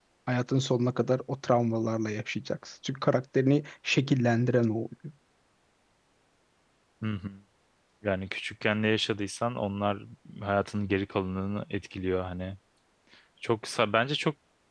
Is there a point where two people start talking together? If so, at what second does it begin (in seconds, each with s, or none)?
none